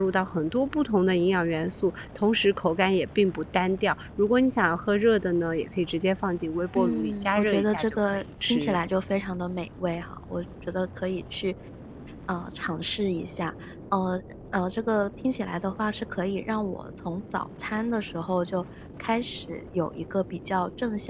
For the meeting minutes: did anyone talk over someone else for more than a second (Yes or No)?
Yes